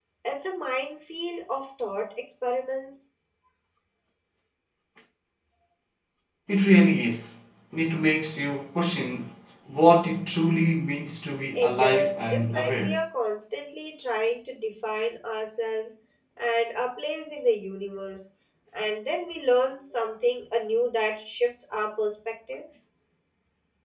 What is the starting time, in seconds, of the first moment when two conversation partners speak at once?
11.6 s

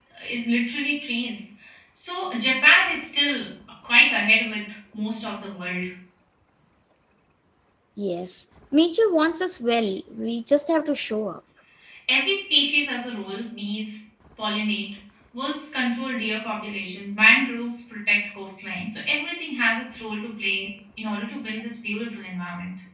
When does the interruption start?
none

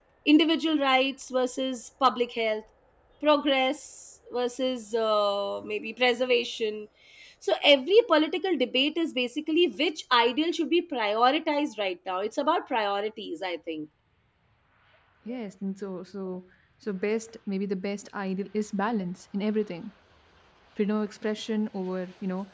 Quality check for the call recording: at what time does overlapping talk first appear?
none

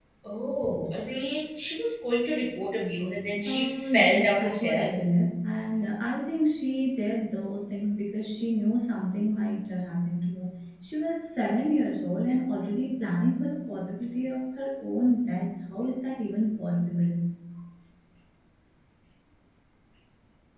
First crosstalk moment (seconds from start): 3.4 s

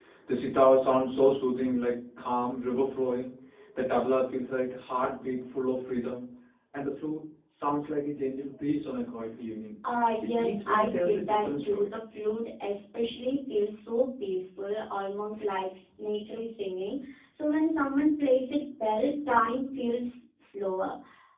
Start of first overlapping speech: 10.2 s

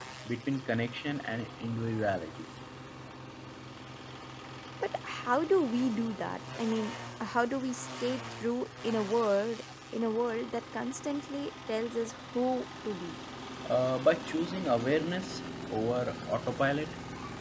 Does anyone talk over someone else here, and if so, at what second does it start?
none

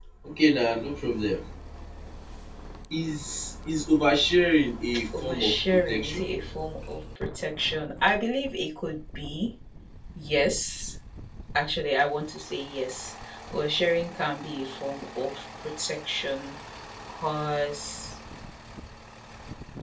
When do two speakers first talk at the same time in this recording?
5.1 s

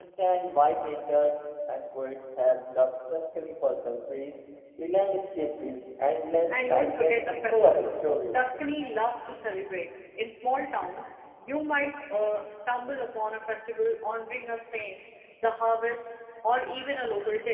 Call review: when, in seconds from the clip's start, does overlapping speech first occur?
6.5 s

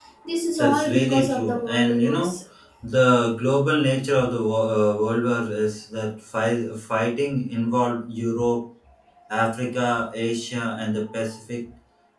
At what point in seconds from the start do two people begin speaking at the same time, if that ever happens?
0.6 s

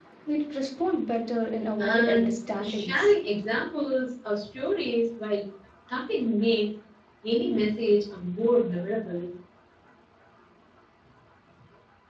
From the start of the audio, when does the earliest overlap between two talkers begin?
1.8 s

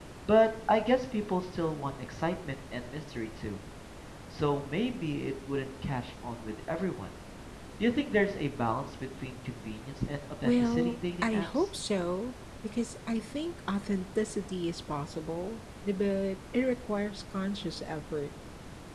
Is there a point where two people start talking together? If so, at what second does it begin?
10.4 s

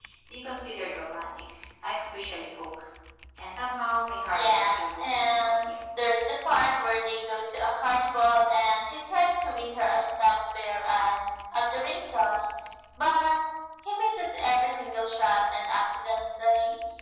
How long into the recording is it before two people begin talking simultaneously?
4.3 s

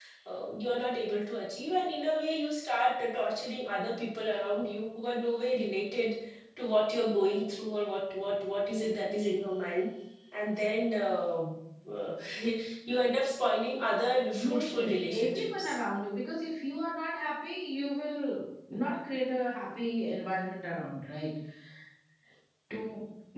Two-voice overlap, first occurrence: 14.3 s

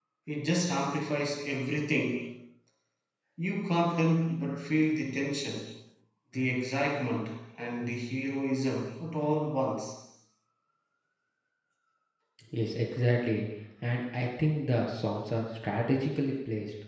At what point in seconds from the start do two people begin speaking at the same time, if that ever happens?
none

